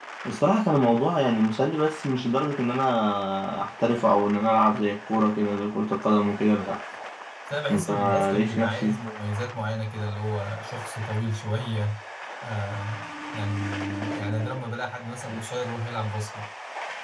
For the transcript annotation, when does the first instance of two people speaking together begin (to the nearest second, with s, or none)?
8 s